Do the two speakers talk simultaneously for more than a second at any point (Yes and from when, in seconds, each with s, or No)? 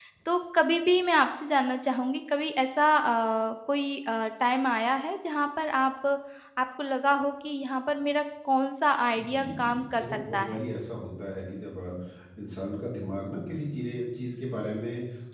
Yes, from 9.2 s